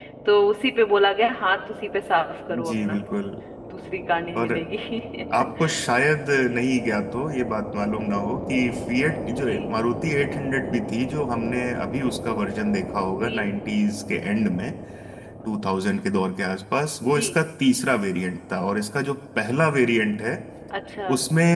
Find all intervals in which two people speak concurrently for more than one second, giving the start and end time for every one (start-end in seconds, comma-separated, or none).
none